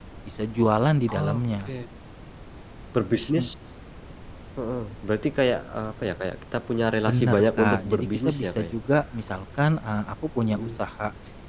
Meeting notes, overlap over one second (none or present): present